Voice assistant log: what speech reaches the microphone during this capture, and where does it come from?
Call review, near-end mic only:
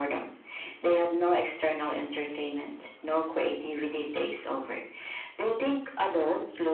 echo only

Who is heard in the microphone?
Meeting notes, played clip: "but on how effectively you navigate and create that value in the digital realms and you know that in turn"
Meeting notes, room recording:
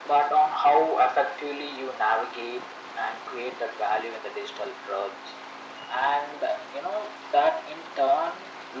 echo only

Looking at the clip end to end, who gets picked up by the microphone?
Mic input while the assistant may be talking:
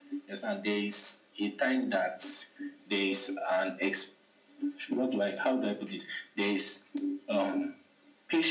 echo only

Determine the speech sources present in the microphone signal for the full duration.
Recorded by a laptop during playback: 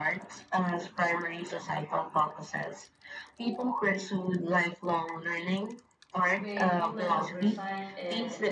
both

